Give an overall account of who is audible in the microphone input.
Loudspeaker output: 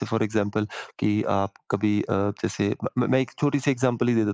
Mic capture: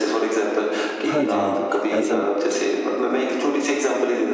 both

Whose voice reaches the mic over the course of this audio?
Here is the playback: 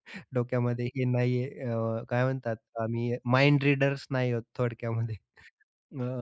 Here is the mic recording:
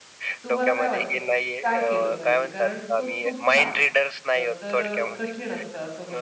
both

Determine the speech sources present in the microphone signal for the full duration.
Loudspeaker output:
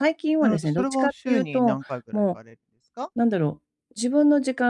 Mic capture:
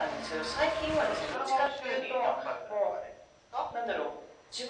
echo only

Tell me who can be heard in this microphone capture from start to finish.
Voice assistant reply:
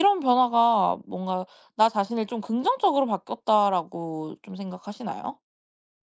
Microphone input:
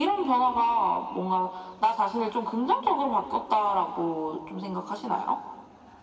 echo only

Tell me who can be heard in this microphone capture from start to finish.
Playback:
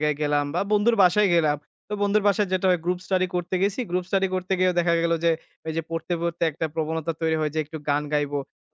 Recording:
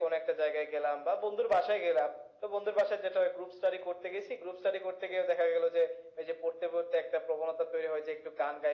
echo only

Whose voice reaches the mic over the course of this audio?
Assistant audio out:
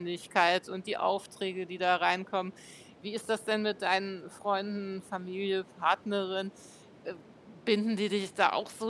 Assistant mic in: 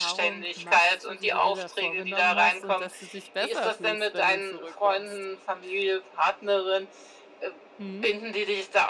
both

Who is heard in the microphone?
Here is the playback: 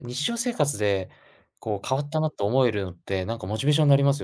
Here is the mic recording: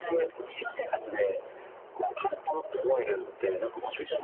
echo only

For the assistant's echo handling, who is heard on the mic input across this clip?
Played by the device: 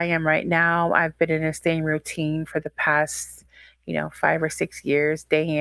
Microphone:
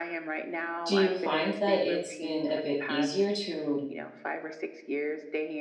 both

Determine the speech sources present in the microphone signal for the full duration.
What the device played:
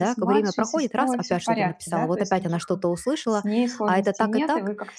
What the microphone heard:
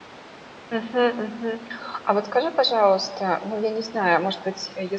user only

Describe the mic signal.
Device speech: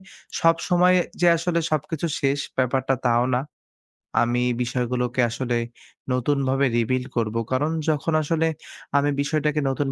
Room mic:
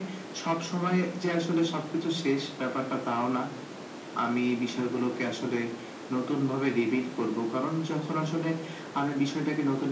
echo only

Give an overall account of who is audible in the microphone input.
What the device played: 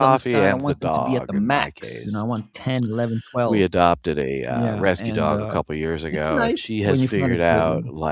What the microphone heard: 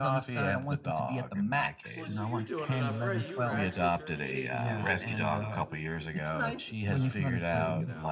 both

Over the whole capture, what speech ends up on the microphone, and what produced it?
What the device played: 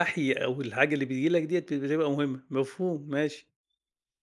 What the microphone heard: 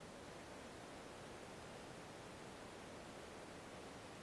neither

